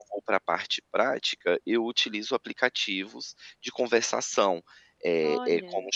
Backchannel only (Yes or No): Yes